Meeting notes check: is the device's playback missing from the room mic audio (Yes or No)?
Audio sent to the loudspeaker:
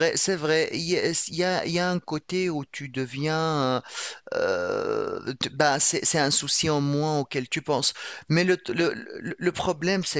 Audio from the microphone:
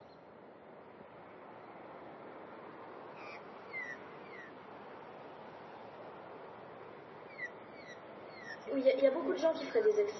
Yes